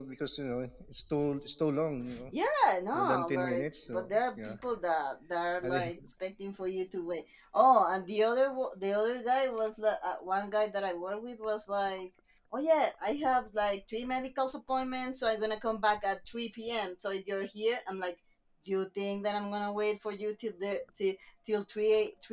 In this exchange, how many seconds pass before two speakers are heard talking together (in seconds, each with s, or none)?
2.9 s